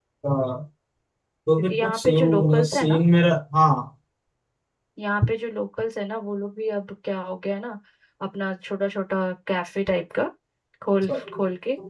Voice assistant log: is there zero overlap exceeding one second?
No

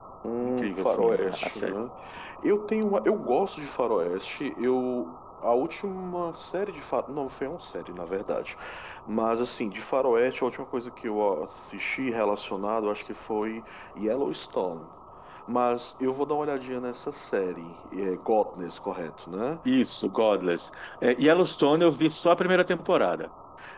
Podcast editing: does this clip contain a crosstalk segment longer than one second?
Yes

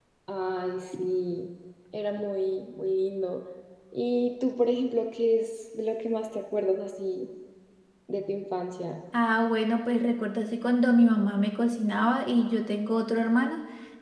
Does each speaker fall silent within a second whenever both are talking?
Yes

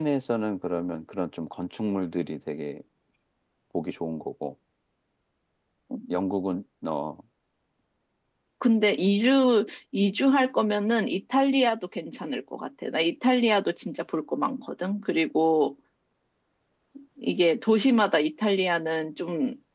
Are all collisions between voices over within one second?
Yes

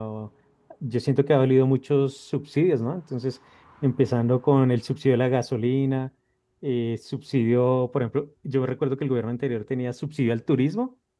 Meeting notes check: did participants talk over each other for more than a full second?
No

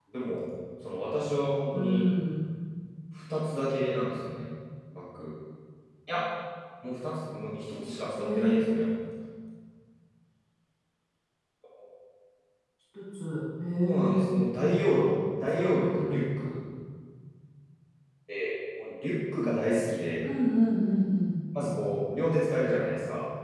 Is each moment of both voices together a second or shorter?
No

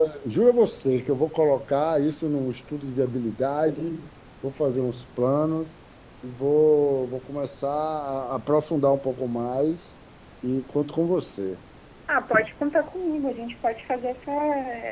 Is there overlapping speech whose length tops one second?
No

